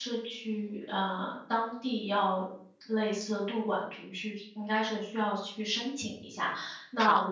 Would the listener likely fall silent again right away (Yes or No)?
Yes